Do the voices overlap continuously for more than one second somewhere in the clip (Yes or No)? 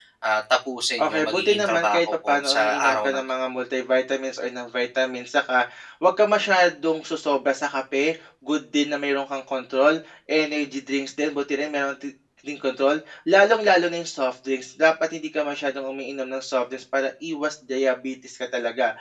Yes